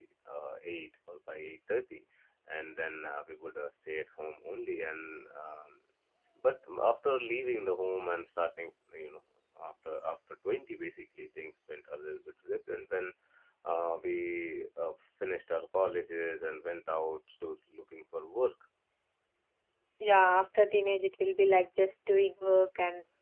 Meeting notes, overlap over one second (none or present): none